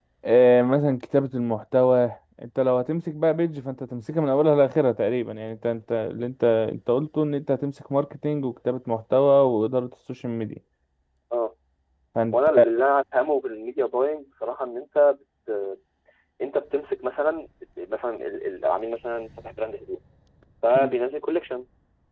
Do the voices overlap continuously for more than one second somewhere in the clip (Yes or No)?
No